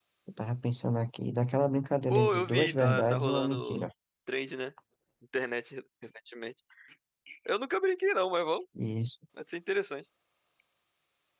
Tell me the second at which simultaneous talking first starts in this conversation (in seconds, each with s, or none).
2.1 s